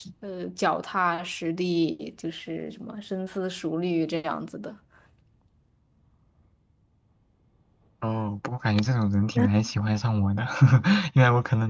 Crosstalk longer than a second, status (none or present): none